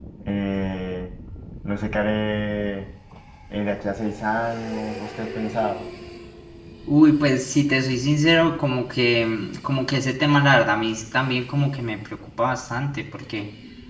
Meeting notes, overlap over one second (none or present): none